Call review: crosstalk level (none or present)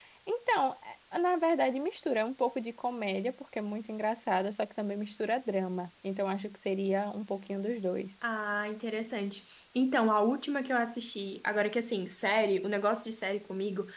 none